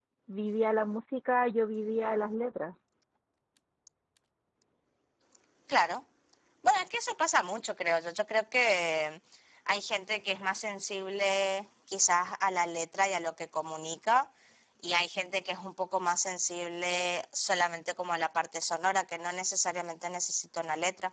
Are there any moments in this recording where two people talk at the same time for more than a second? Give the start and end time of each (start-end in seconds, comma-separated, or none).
none